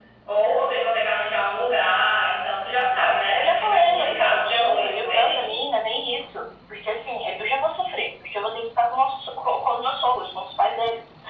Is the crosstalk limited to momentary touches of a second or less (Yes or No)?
No